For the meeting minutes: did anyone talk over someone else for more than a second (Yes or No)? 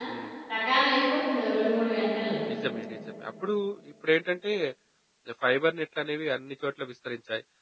No